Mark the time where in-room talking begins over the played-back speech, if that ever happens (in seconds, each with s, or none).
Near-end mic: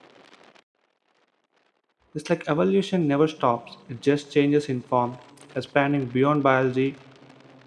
2.1 s